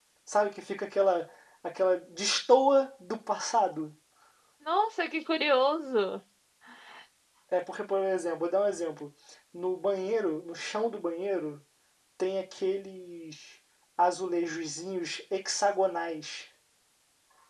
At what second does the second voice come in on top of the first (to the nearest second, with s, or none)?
none